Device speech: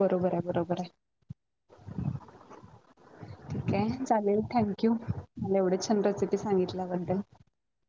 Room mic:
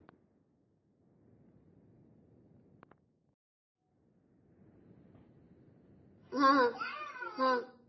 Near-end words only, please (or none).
हा हा हा